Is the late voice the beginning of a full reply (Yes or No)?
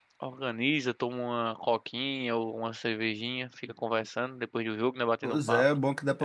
Yes